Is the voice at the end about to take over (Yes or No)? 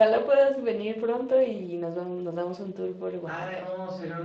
Yes